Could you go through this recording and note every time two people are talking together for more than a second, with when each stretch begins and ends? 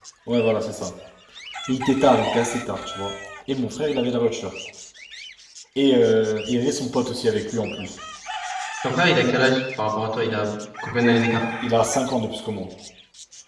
none

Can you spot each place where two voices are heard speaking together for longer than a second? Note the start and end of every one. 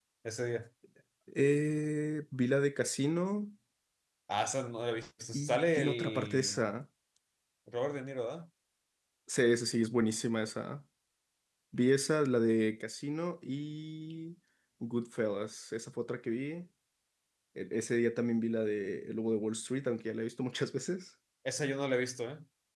5.3-6.6

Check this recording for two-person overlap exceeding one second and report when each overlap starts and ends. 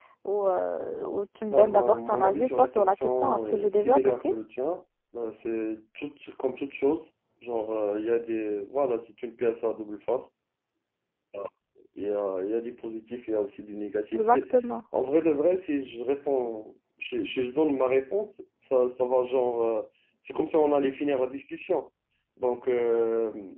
1.5-4.3

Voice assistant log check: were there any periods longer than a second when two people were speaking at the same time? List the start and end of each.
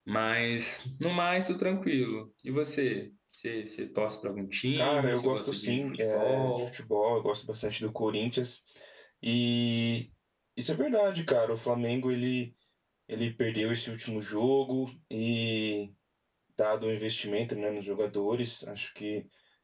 4.8-6.7

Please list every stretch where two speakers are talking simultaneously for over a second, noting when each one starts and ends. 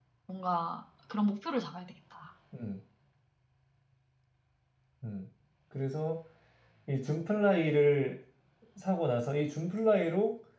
none

